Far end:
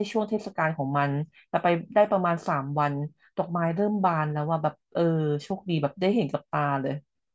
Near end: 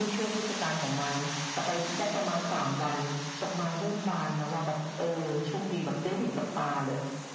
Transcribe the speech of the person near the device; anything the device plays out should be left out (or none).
none